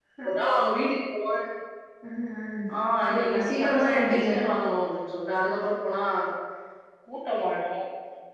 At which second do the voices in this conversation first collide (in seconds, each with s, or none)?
3.0 s